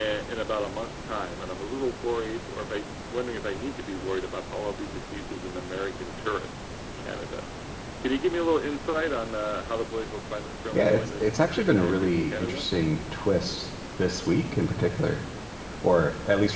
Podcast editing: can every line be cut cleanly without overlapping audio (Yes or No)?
No